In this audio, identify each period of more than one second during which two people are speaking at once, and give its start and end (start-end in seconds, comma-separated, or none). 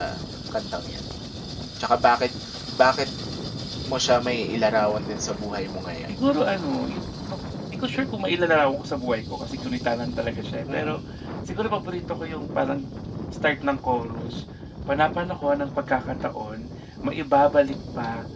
none